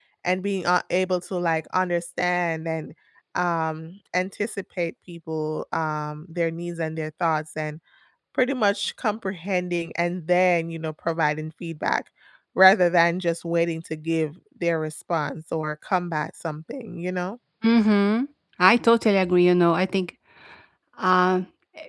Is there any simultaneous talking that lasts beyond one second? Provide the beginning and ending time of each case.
none

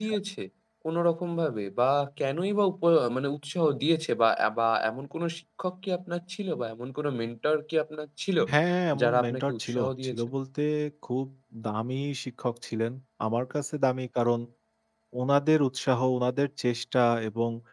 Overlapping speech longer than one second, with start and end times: 9.0-10.3

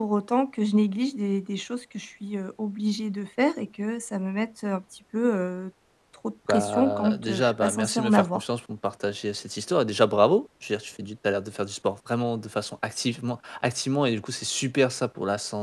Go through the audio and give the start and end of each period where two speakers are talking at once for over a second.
6.5-8.4

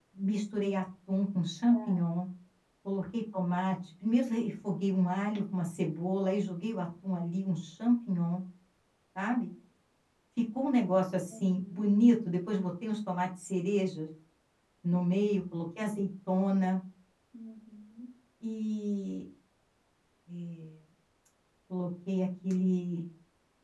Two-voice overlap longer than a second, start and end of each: none

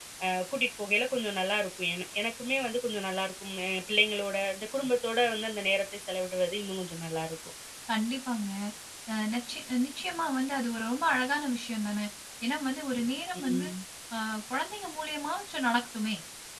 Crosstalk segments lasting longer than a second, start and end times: none

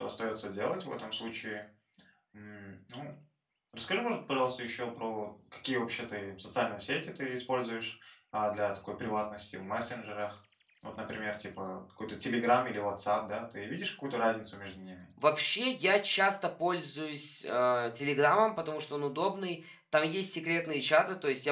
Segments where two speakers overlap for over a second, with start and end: none

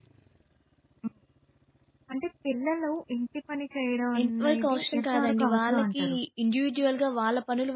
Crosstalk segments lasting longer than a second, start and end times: 4.2-6.0

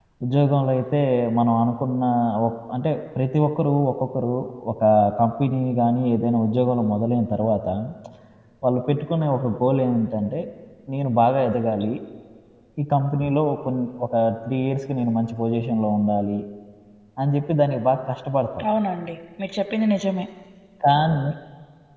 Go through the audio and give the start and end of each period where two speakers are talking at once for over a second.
none

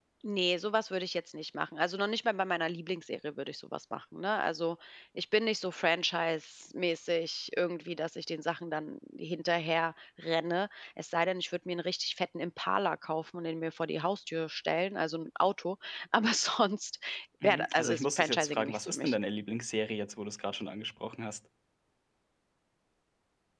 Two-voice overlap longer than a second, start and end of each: 17.4-19.1

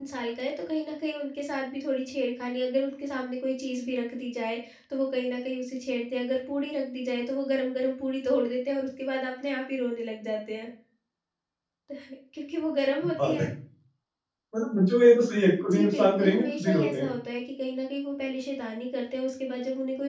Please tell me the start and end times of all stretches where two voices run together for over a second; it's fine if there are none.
15.7-17.1

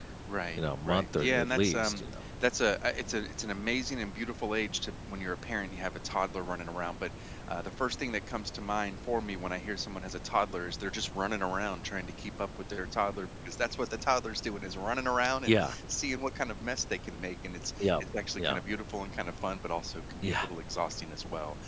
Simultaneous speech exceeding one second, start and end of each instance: 0.6-2.0

